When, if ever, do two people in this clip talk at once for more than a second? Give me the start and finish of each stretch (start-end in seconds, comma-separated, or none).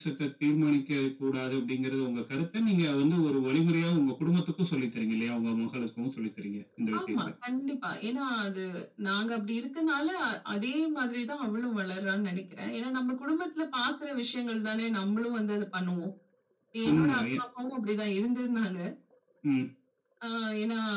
none